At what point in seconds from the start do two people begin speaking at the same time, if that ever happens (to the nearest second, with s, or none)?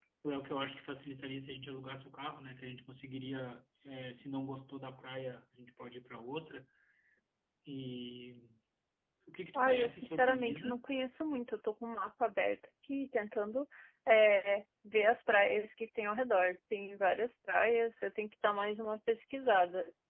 10 s